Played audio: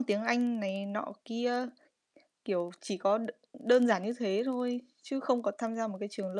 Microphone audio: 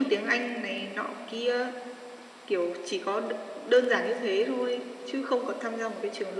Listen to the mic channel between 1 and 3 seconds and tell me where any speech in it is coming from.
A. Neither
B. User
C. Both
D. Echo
D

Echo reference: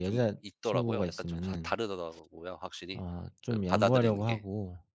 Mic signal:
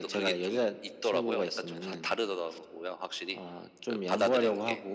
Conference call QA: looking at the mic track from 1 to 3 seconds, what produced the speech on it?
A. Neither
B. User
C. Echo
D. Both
C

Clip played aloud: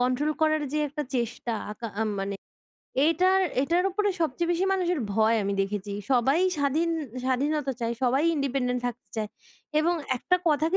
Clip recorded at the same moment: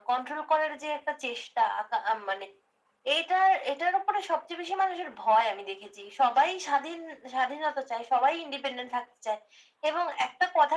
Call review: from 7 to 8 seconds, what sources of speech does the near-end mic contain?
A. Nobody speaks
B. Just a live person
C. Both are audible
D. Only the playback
D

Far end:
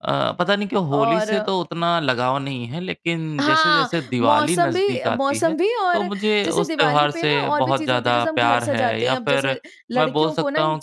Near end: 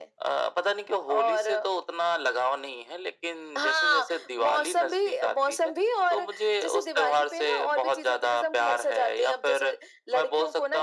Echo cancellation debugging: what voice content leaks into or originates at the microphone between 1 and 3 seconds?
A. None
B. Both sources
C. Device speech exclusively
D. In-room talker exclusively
C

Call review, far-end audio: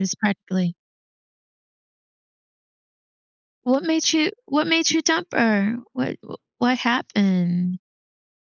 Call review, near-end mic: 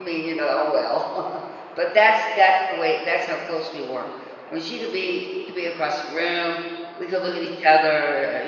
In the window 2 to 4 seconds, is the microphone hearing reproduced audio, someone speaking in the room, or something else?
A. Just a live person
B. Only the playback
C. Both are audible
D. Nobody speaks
A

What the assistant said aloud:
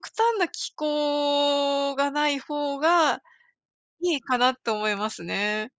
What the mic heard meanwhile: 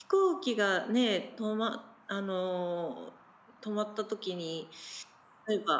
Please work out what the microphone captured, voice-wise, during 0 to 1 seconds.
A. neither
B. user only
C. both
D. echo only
B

